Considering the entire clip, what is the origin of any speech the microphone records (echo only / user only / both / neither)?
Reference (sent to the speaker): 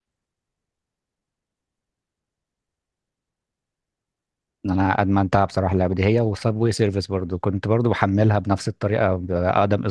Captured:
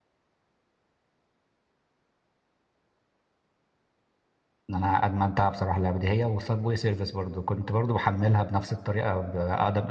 echo only